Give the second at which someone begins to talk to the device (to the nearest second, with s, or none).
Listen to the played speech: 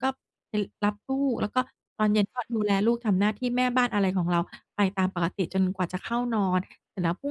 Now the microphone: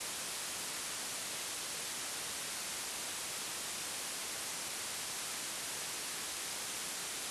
none